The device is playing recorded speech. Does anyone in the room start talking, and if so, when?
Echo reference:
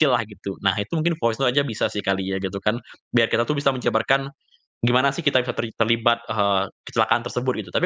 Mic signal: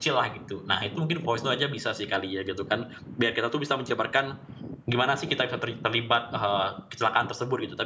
none

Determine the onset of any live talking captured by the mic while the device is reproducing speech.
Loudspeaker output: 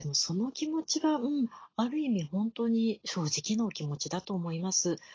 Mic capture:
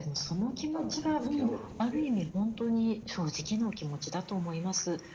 0.5 s

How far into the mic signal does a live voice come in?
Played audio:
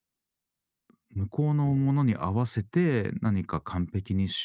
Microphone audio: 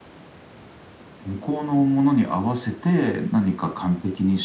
none

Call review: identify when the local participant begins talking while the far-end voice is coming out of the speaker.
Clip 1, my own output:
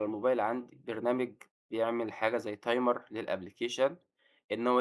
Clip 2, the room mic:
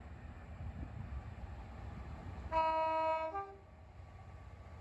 none

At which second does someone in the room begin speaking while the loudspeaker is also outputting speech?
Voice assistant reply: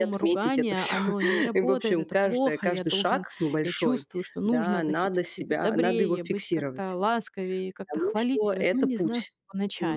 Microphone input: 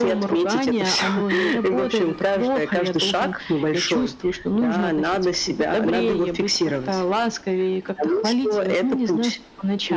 none

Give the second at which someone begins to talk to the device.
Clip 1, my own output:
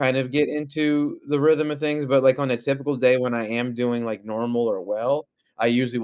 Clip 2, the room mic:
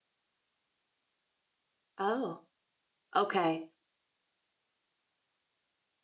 2.0 s

